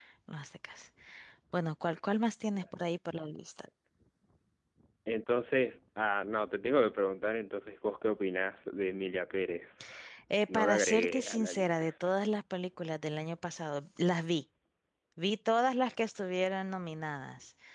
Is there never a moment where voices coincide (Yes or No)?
No